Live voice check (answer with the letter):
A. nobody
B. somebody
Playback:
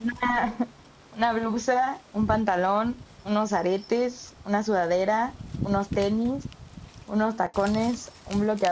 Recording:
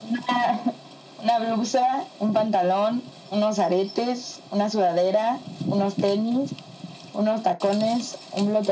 A